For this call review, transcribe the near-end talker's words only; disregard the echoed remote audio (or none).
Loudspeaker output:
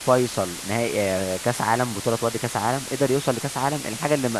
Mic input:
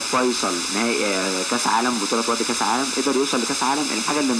none